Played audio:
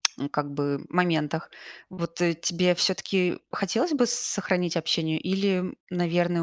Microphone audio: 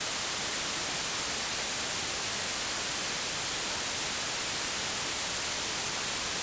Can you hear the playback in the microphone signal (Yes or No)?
No